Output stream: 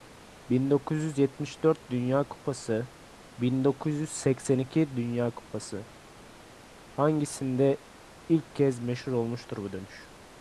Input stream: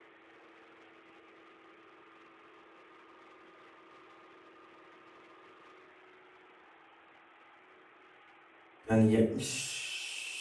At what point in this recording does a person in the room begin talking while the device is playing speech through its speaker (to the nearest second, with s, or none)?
9 s